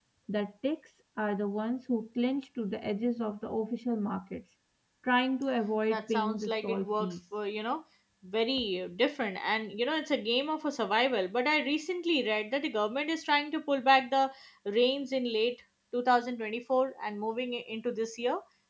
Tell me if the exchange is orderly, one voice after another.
No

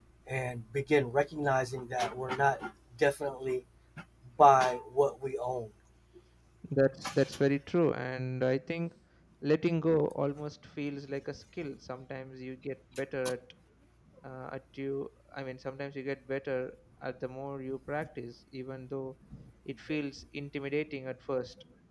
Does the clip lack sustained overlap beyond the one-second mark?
Yes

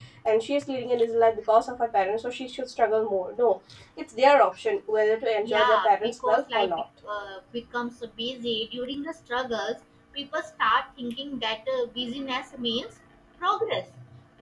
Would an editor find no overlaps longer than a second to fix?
No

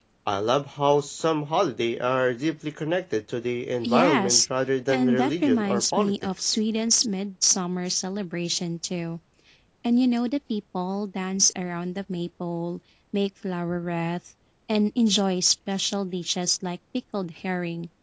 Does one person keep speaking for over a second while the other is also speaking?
Yes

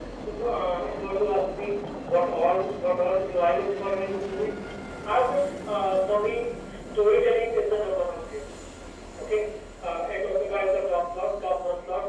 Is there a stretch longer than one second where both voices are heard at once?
No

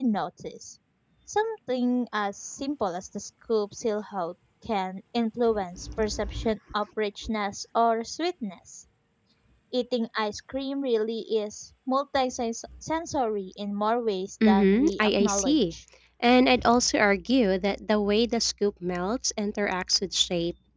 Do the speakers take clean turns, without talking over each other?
No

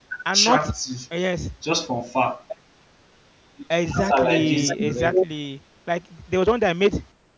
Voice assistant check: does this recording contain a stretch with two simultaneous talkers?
Yes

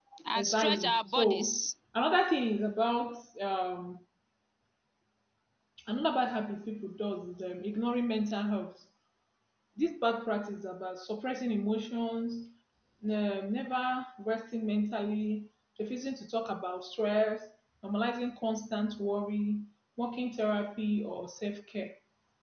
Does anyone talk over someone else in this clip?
Yes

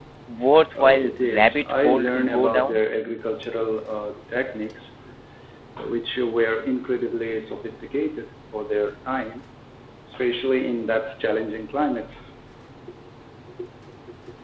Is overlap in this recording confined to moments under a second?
No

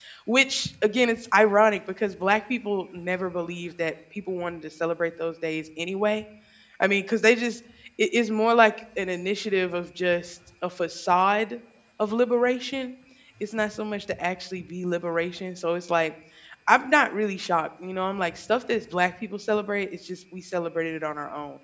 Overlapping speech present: No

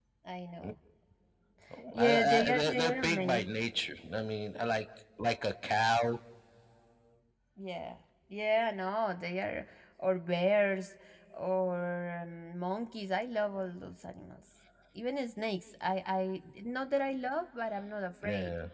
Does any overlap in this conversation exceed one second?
Yes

